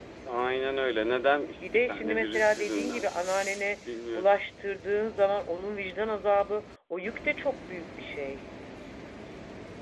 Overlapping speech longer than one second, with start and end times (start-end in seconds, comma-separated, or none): 1.6-3.1